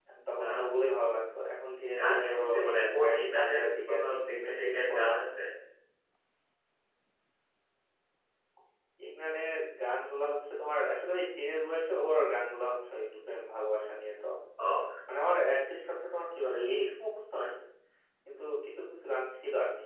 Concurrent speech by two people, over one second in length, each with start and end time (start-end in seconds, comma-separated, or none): 2.0-5.2